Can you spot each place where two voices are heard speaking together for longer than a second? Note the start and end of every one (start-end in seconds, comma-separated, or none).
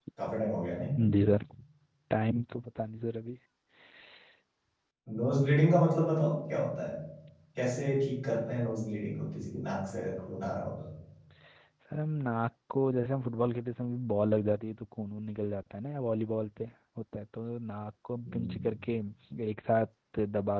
none